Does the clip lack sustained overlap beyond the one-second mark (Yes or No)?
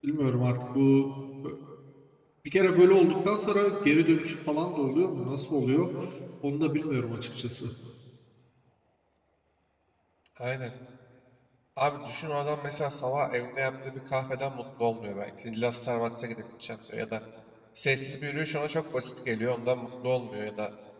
Yes